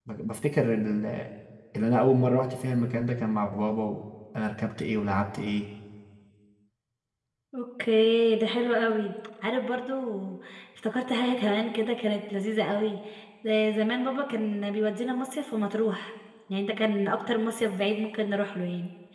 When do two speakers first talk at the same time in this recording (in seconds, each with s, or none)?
none